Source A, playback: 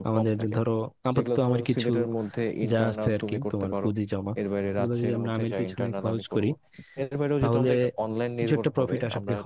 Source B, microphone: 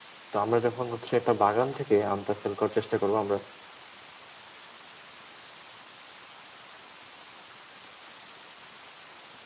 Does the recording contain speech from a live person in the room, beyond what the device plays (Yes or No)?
Yes